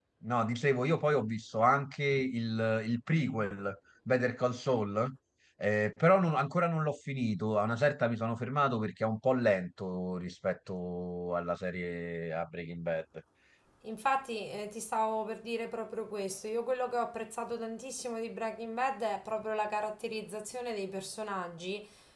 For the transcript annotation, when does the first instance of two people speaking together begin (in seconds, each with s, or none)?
none